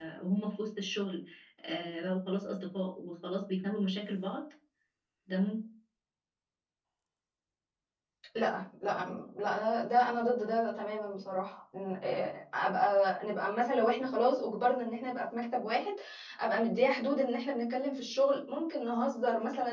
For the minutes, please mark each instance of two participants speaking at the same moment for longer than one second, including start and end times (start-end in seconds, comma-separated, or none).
none